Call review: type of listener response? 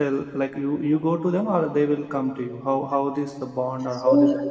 taking over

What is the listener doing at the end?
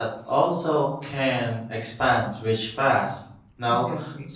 listening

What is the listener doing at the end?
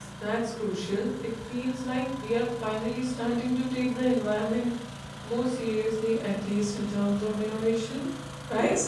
taking over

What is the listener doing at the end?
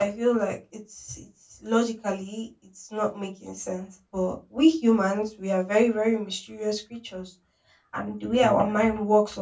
listening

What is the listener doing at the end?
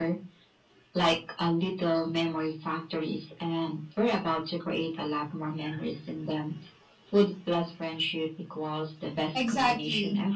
taking over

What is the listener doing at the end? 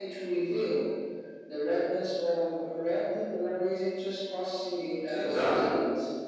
taking over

